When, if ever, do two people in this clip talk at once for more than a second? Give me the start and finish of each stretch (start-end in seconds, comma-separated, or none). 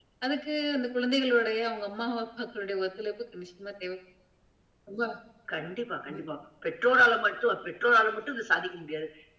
none